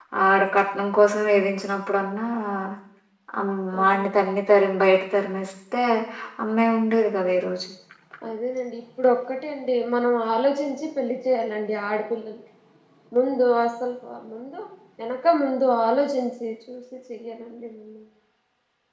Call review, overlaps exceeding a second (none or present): none